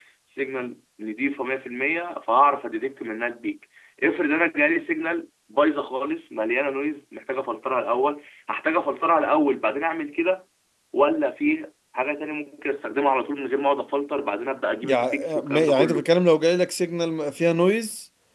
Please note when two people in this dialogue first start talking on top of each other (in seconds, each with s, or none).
14.8 s